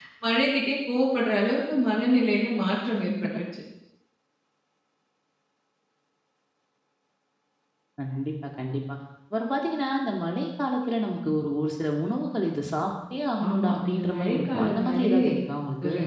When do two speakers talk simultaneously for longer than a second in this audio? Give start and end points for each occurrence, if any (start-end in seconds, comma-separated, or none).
13.5-15.1